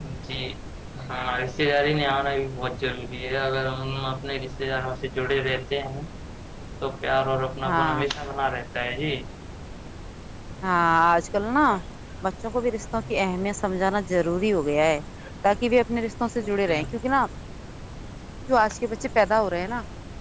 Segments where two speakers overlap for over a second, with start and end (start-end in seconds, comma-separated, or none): none